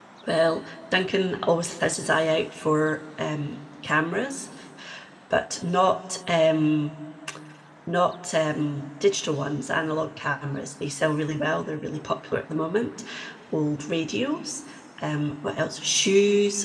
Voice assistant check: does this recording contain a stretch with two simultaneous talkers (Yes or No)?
No